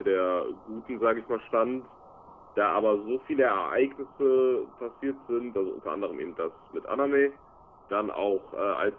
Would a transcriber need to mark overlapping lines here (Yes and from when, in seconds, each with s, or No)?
No